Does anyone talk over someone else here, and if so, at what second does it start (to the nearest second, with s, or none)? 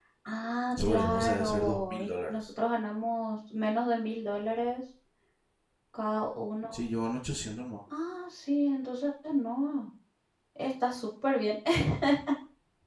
1 s